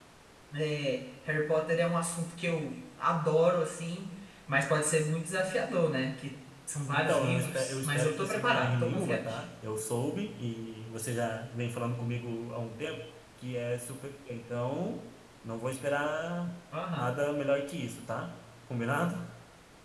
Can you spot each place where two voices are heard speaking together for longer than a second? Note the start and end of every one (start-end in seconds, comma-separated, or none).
6.9-9.4